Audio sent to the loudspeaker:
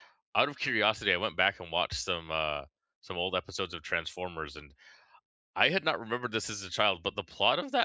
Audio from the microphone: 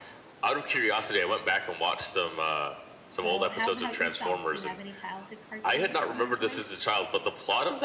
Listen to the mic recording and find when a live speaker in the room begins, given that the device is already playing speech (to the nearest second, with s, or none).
3 s